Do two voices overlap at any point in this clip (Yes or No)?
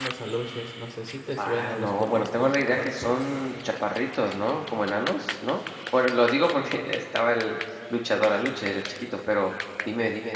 Yes